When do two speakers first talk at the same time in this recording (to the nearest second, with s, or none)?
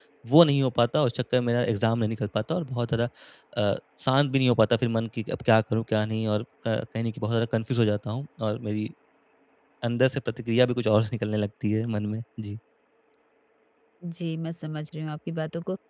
none